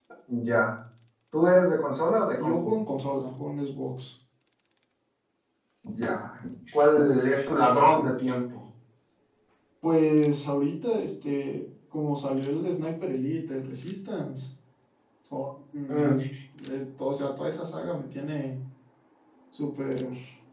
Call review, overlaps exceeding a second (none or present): none